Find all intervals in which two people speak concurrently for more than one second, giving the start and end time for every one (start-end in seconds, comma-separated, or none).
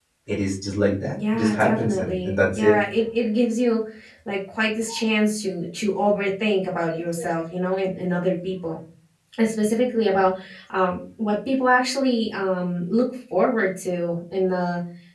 1.1-2.8